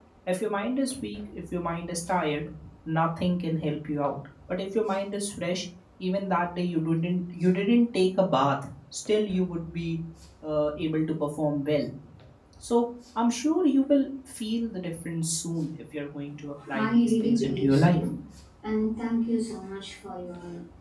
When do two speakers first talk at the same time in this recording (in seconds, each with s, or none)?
16.7 s